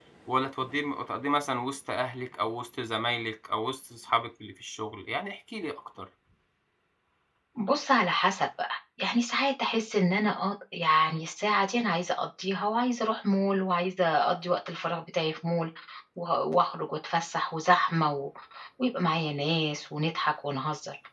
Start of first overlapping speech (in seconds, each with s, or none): none